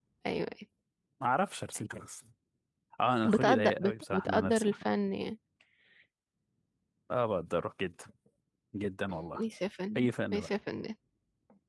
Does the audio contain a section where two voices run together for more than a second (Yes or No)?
Yes